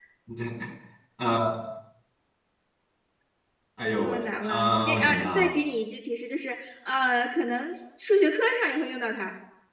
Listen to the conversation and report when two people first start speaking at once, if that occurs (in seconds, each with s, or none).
4.0 s